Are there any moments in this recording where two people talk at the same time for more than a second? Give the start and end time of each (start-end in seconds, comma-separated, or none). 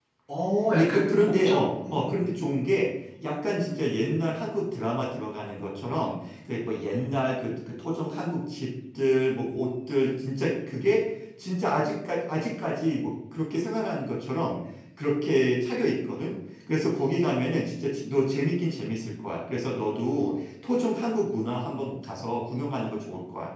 0.7-2.3